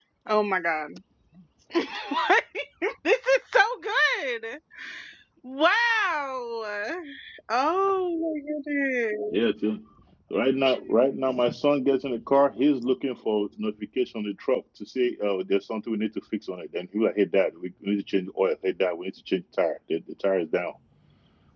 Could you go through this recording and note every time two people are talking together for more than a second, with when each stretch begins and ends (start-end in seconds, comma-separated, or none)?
none